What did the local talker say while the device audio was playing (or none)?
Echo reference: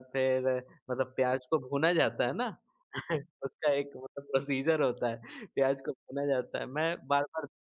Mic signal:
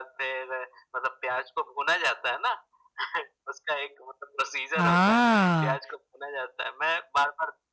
आ!